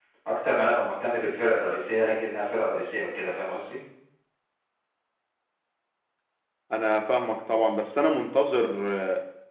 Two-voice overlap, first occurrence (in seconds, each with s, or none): none